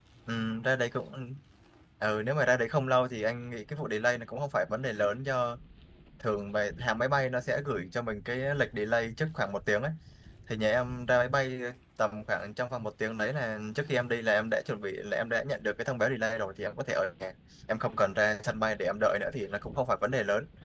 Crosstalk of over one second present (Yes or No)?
No